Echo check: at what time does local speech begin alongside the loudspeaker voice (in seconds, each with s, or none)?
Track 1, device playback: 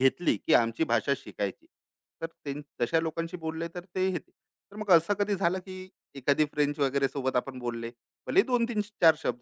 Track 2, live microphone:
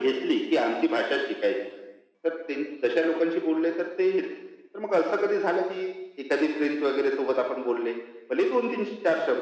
none